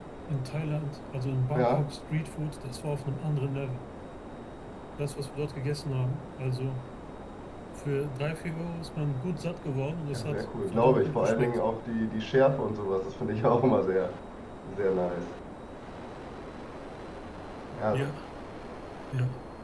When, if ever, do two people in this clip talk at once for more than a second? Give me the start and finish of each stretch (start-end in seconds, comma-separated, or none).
10.1-11.6